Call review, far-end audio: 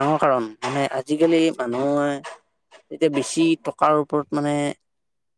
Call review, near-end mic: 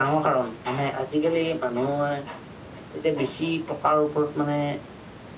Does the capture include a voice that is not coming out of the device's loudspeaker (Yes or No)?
No